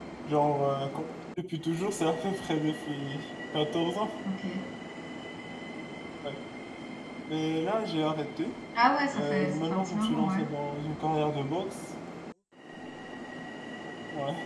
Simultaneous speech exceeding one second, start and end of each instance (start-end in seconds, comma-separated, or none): 9.1-10.4